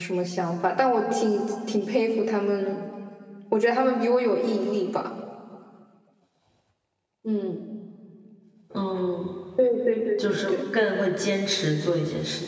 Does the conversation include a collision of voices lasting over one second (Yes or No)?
No